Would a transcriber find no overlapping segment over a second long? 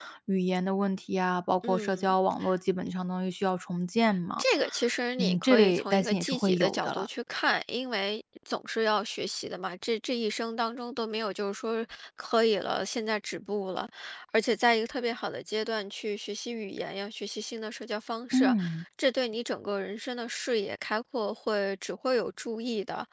No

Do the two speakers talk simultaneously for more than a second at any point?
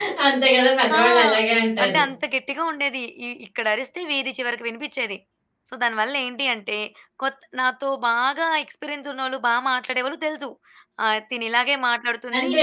No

